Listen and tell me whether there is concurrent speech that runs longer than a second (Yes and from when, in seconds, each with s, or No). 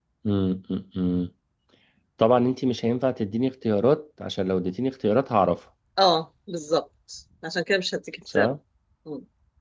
No